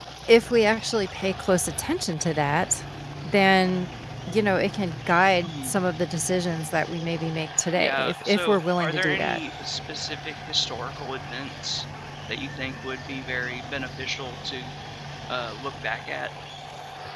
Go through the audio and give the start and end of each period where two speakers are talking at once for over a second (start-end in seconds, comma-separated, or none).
7.8-9.4